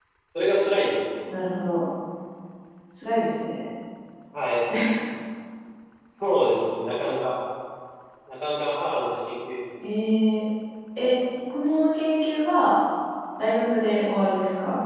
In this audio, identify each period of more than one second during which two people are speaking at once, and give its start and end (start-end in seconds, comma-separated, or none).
none